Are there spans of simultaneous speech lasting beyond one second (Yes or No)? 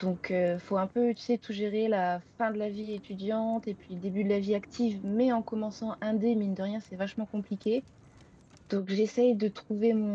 No